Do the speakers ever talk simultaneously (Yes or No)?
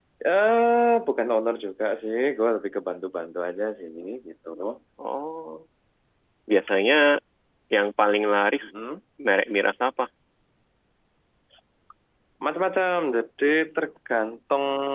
No